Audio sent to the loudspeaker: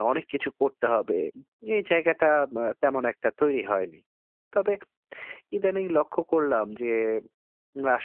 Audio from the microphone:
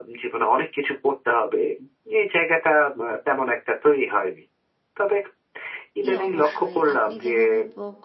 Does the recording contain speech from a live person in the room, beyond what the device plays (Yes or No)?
Yes